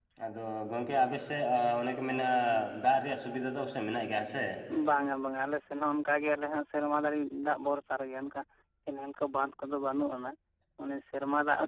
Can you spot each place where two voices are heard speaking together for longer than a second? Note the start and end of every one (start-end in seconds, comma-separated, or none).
none